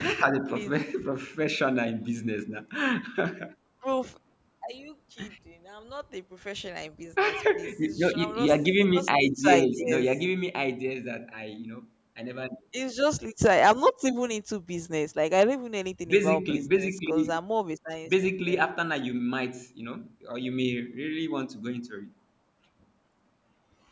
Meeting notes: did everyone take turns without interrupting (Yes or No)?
No